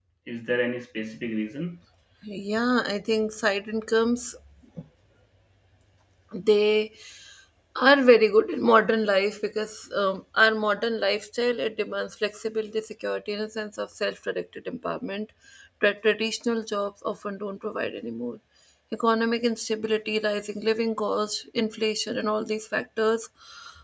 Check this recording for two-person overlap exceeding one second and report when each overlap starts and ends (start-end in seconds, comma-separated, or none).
none